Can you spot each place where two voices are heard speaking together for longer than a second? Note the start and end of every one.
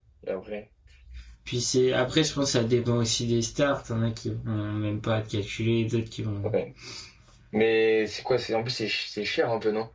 none

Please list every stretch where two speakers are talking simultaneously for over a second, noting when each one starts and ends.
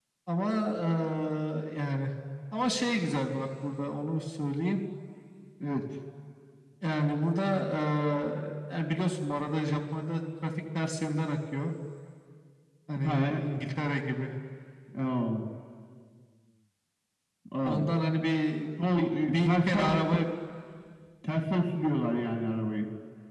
19.0-20.3

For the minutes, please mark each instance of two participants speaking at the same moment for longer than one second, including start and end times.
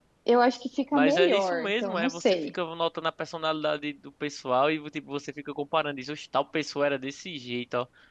0.9-2.5

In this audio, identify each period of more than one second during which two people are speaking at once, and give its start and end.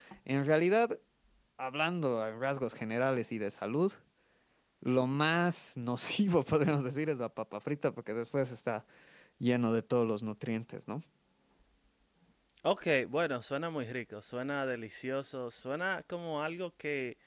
none

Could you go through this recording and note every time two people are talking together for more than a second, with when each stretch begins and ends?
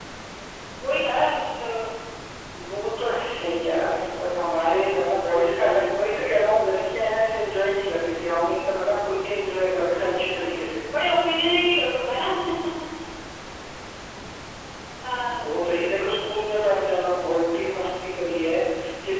none

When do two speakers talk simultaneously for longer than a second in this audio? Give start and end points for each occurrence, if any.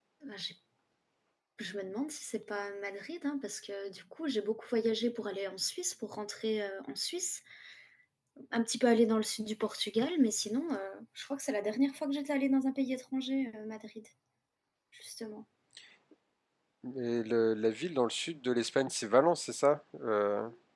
none

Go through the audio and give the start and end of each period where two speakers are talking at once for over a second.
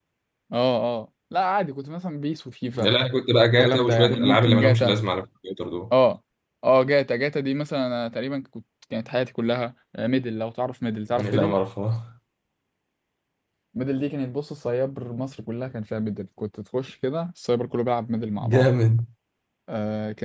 3.6-4.9

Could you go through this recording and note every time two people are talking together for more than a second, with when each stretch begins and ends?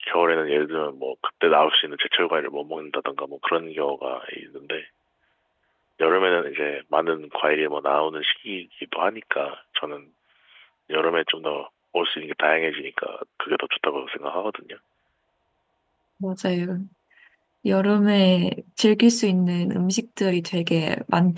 none

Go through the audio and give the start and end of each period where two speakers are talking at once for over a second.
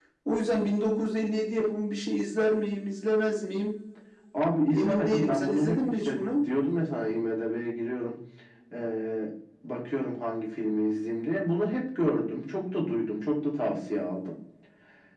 4.7-6.3

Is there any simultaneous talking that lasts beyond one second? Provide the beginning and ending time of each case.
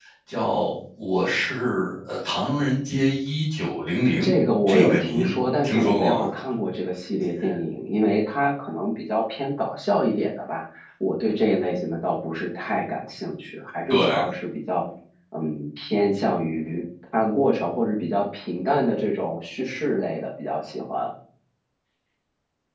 4.7-6.3

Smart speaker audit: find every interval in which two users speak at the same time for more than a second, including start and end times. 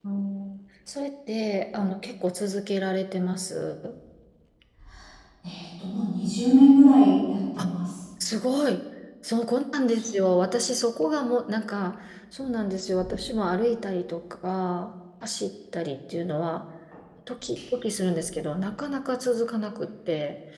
none

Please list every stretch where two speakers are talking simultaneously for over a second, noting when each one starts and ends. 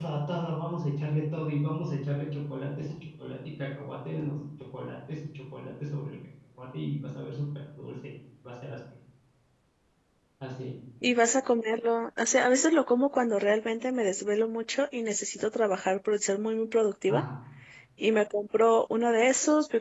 none

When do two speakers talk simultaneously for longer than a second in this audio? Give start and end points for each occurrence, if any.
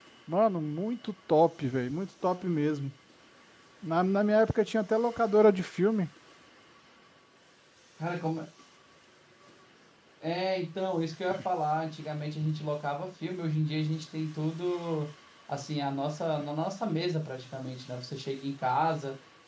none

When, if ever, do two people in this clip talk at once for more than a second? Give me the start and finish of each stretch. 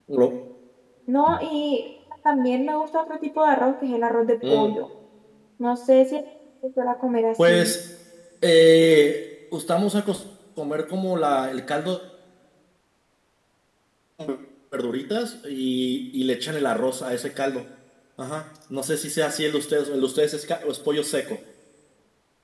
none

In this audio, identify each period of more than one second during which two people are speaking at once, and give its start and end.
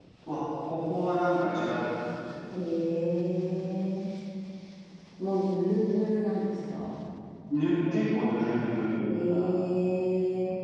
none

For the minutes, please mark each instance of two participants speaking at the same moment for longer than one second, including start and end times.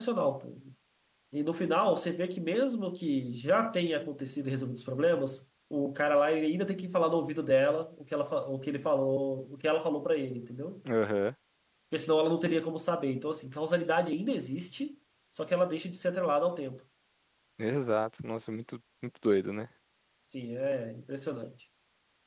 none

